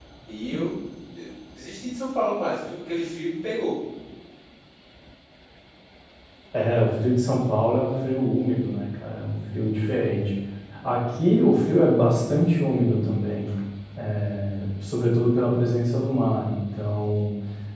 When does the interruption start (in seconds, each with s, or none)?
none